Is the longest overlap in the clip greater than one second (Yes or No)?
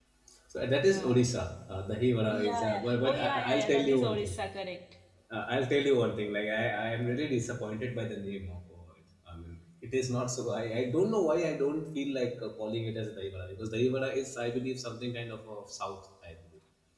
Yes